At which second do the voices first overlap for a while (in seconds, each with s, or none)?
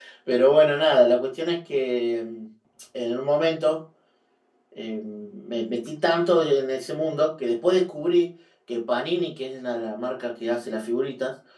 none